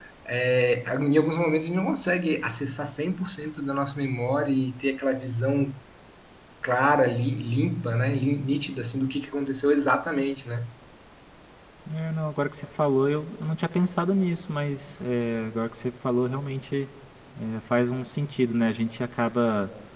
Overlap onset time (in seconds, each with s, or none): none